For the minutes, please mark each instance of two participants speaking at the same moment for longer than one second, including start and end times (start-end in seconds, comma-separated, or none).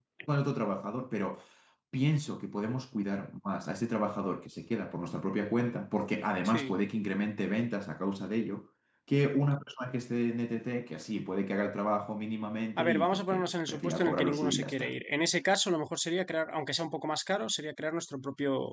12.8-14.9